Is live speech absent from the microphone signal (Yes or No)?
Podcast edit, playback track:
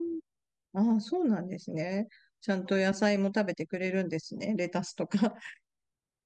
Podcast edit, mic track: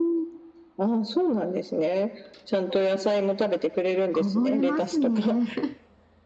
No